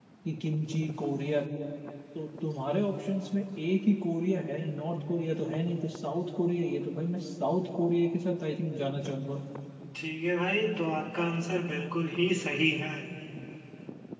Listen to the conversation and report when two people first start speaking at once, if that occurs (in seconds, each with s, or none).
none